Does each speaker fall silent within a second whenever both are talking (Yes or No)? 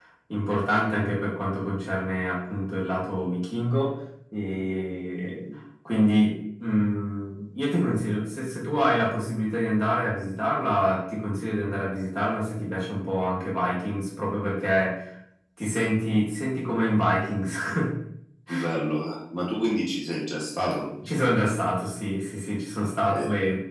Yes